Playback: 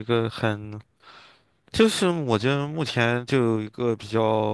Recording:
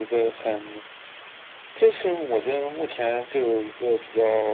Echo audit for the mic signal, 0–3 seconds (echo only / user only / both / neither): echo only